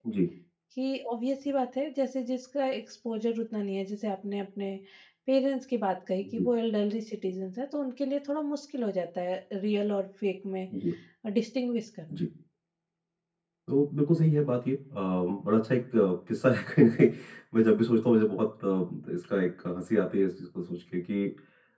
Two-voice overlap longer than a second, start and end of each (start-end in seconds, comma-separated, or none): none